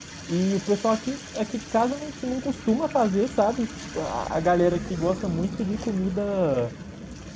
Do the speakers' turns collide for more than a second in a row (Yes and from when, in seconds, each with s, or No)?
No